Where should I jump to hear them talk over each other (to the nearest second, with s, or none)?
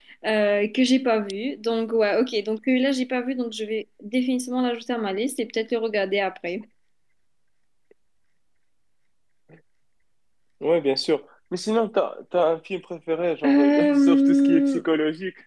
13 s